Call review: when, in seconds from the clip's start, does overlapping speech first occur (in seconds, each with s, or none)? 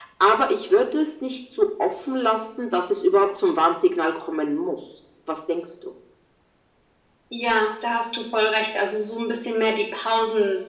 none